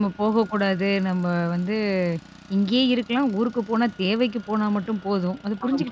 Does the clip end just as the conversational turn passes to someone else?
Yes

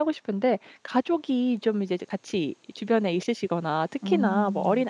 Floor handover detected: No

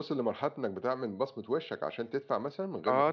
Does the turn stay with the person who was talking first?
No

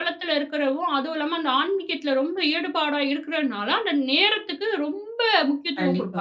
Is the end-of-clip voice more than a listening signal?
Yes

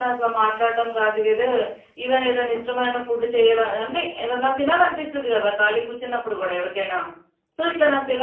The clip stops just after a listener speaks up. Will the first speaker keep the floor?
Yes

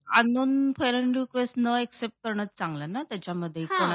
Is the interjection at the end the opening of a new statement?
Yes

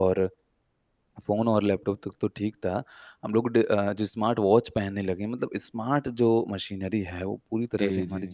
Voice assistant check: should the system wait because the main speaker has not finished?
Yes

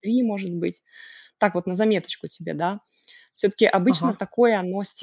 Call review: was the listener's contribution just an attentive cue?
Yes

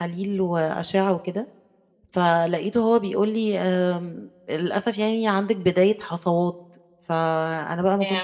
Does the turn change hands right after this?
No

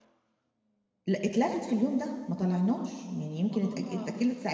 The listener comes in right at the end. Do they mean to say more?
No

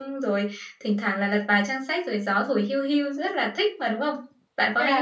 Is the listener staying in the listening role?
No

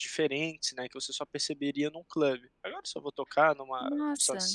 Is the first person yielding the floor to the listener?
No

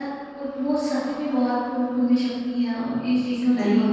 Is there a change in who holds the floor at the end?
Yes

